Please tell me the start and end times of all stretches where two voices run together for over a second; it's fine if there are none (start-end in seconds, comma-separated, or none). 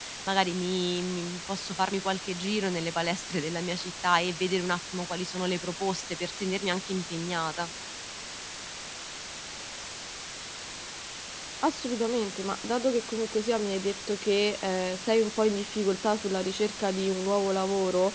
none